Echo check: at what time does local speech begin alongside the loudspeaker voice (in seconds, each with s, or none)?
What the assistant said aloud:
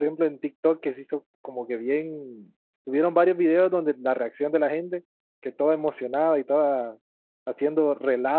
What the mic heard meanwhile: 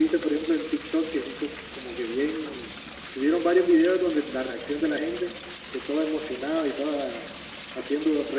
none